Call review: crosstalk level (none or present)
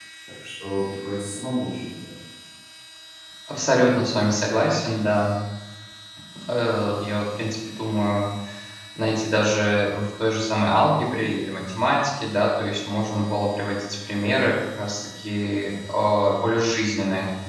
none